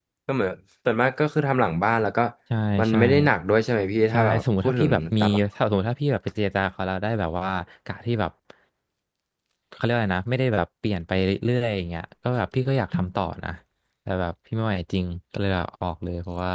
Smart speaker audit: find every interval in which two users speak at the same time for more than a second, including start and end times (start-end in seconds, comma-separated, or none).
4.1-5.4